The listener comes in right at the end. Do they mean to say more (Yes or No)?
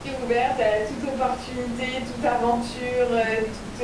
No